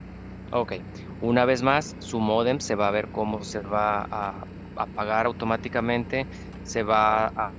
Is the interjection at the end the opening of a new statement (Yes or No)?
No